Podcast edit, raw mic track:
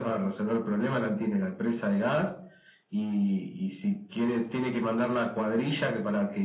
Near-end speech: none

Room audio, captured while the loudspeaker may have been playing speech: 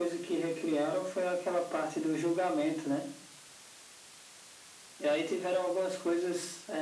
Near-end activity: none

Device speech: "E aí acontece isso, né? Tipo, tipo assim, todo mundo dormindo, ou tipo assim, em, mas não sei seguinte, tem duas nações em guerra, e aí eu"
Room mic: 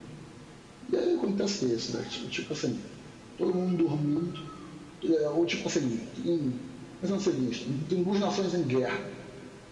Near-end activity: none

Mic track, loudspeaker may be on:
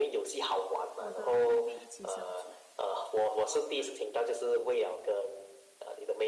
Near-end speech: present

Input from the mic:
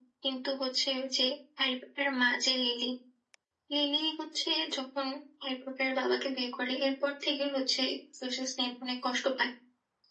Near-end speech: none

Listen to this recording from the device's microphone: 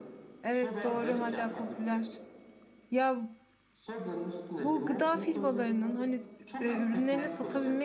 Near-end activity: present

